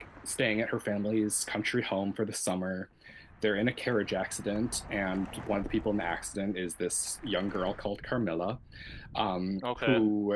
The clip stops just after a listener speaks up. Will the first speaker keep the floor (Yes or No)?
Yes